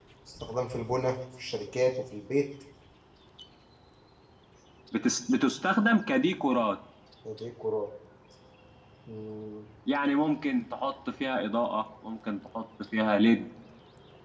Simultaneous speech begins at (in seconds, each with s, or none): none